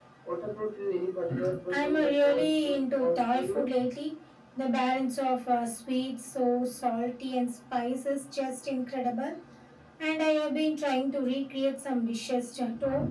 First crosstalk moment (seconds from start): 1.7 s

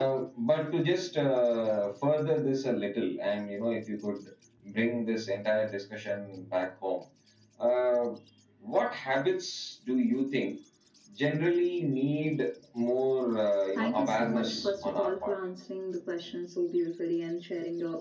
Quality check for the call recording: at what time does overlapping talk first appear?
13.8 s

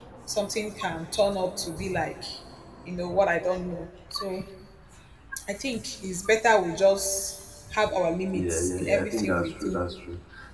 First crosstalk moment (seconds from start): 8.3 s

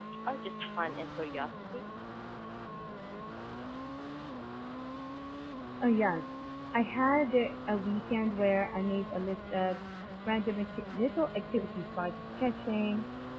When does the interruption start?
none

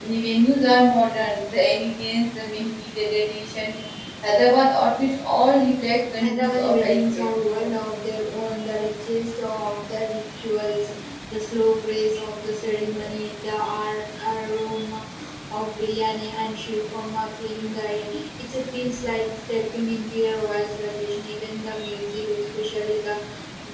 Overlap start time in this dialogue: 6.2 s

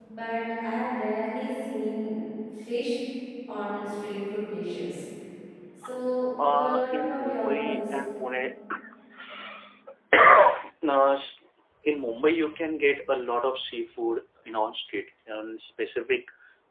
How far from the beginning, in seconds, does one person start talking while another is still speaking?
6.4 s

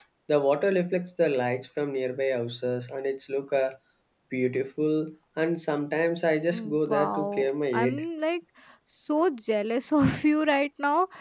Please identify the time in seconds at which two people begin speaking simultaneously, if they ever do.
6.5 s

